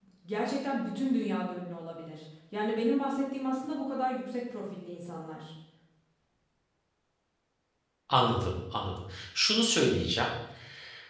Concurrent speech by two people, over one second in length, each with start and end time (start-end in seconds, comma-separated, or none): none